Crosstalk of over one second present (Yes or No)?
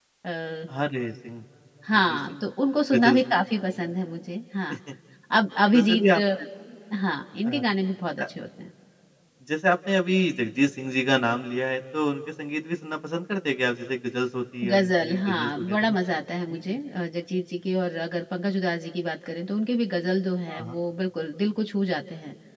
Yes